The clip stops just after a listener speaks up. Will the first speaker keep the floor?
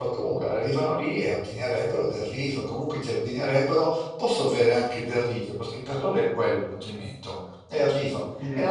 Yes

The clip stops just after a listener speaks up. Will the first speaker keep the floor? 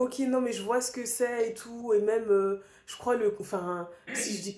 Yes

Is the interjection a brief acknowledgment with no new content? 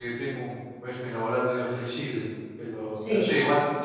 Yes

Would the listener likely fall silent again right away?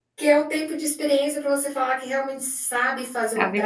Yes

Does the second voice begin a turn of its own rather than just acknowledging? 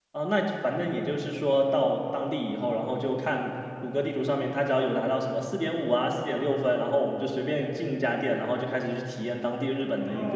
Yes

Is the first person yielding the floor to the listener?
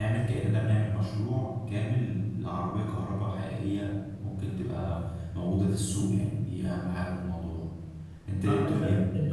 Yes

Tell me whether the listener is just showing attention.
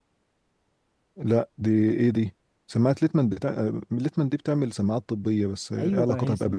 No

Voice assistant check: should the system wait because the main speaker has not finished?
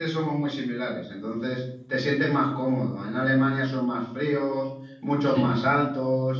Yes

